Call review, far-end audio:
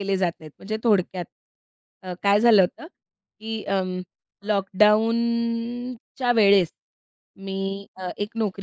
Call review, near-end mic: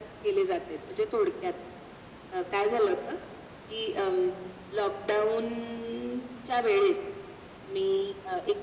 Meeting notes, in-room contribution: none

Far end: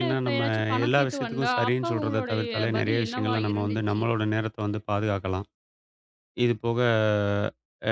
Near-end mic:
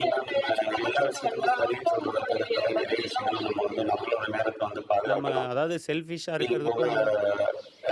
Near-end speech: present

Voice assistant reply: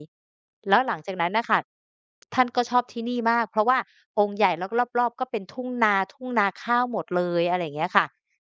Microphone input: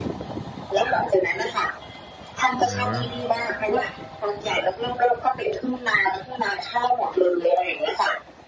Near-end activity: present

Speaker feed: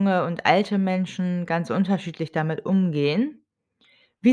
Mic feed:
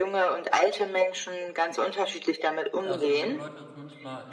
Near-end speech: present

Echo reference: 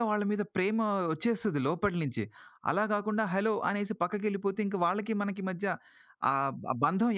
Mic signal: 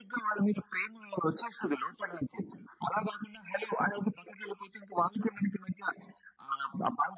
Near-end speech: none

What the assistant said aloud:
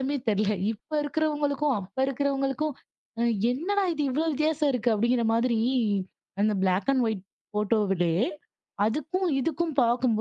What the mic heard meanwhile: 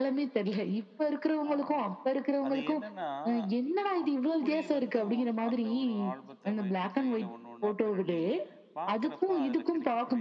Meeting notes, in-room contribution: present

